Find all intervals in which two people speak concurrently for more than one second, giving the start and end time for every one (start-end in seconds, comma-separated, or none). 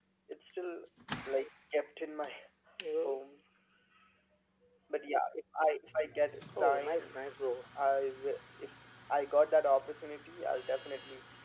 none